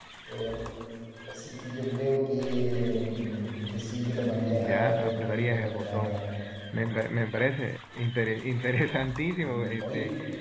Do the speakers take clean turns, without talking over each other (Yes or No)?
No